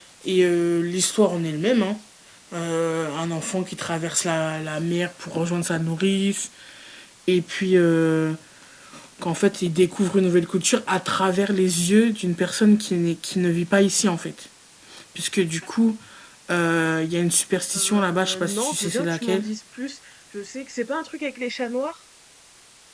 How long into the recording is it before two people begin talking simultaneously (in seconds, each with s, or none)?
17.7 s